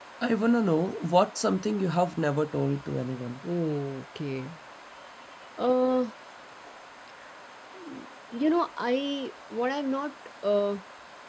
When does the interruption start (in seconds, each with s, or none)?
none